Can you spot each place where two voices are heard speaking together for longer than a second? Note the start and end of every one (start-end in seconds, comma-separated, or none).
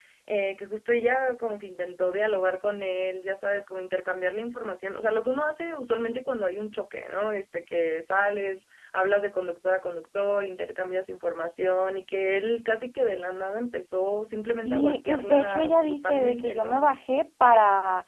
14.5-16.8